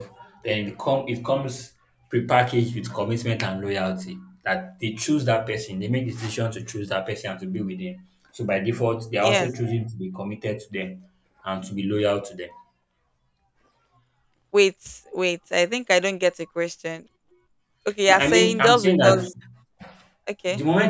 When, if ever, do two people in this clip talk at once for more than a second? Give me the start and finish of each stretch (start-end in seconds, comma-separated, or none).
18.1-19.3